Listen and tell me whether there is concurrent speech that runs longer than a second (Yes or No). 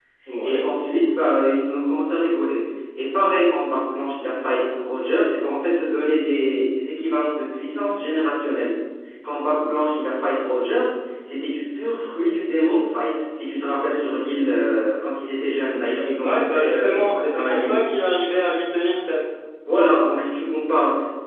Yes